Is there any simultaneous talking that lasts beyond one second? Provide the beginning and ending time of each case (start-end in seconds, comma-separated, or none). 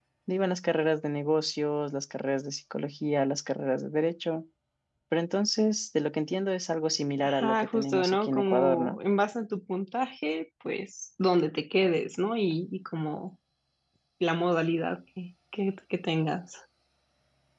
7.2-9.0